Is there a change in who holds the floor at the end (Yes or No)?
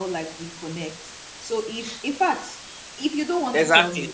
Yes